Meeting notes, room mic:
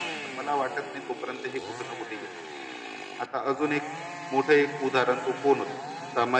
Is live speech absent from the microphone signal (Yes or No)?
Yes